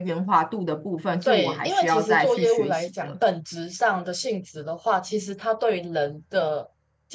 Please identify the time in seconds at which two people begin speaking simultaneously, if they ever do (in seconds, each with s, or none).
1.2 s